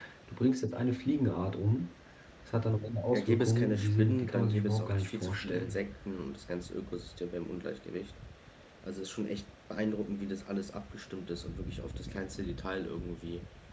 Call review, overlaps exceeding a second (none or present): present